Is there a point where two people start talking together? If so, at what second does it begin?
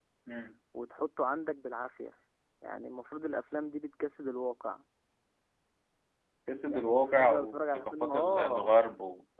6.6 s

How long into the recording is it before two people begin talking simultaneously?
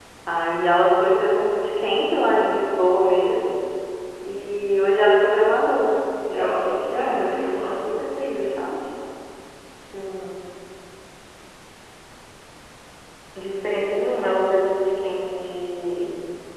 6.2 s

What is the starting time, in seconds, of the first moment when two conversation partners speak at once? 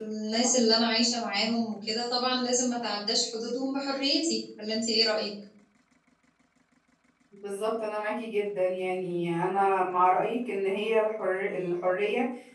none

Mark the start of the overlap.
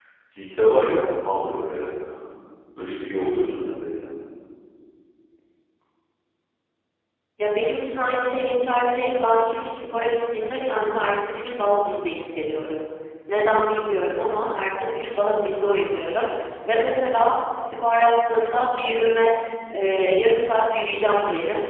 none

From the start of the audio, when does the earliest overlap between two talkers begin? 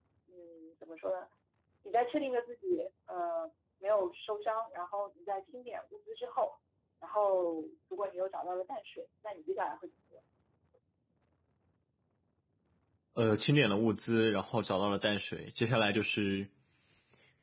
none

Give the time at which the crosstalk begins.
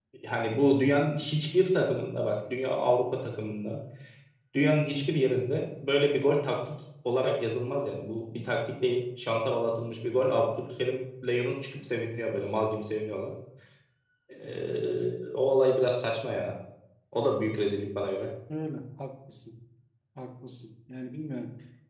none

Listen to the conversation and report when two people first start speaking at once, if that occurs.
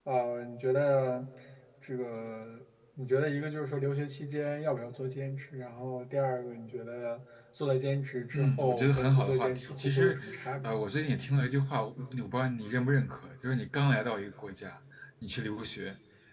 8.3 s

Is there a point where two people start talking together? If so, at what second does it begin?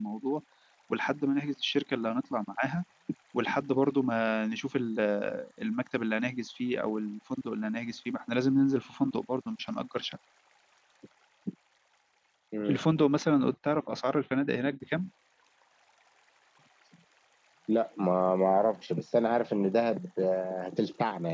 none

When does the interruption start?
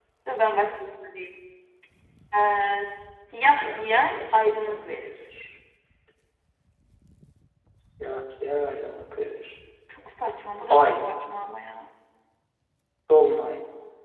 3.6 s

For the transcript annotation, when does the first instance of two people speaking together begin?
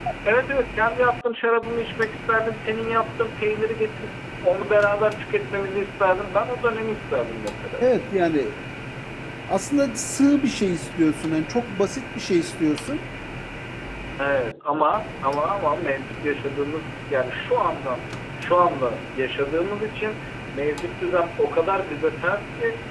none

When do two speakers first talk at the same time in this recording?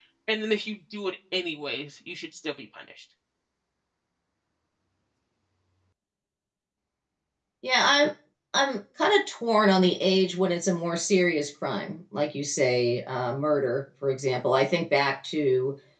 none

